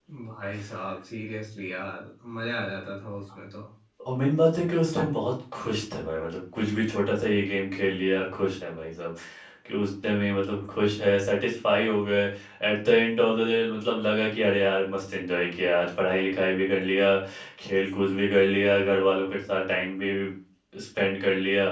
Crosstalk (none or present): none